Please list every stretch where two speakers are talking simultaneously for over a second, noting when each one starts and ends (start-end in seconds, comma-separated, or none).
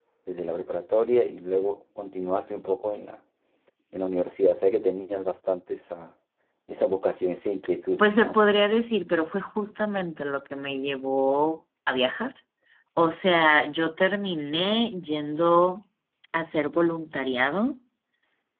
none